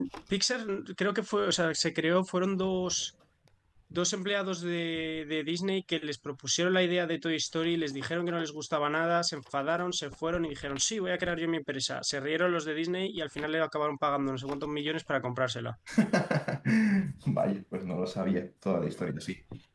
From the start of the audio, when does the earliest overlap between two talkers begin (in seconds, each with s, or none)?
none